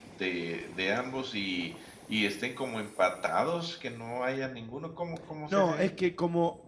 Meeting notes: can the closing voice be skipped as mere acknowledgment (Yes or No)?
No